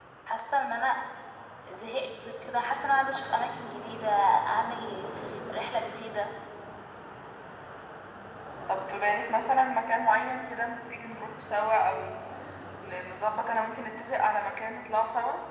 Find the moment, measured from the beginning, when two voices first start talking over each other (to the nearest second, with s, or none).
none